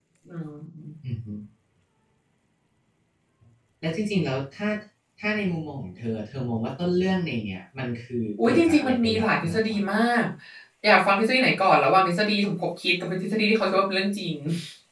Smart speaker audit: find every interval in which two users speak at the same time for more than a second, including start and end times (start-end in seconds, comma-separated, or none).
8.4-9.8